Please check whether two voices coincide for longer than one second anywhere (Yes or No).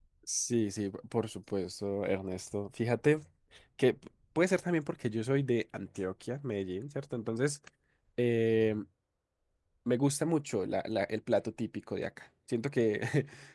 No